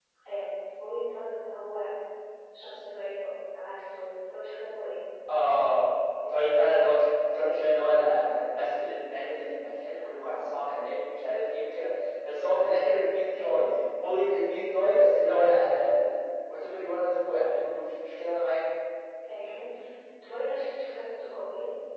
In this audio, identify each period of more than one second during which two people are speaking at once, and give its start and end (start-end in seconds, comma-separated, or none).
none